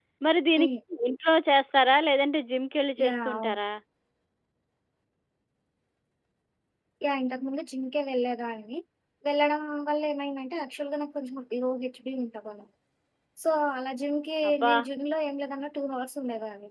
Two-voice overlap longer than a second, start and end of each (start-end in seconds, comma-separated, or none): none